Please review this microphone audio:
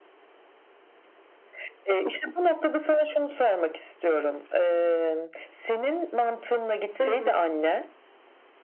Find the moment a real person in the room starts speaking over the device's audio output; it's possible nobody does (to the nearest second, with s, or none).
7 s